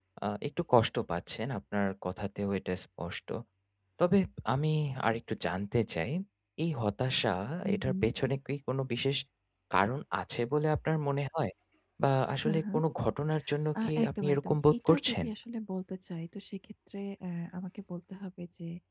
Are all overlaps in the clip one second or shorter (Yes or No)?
No